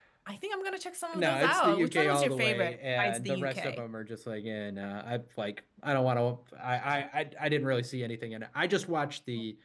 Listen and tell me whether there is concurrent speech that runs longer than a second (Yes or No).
Yes